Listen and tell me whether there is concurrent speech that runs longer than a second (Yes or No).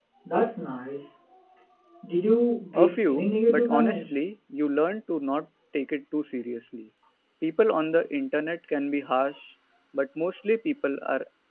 Yes